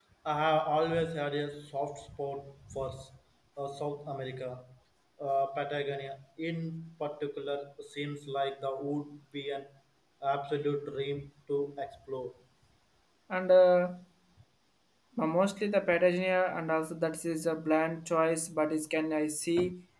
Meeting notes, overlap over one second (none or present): none